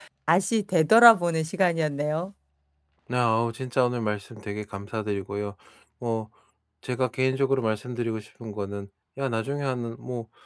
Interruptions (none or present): none